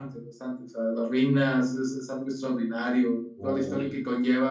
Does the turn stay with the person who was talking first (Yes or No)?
Yes